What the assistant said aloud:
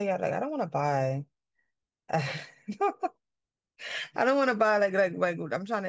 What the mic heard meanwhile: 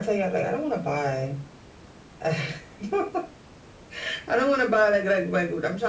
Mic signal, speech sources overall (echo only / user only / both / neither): echo only